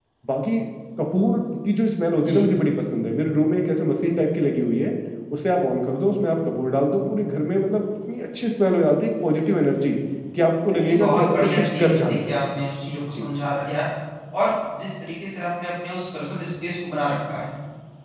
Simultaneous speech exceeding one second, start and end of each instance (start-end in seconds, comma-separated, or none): 10.7-12.3